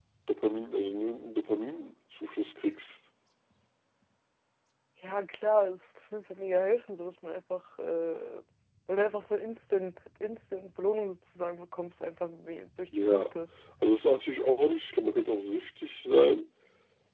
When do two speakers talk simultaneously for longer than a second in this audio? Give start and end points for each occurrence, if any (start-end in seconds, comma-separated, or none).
none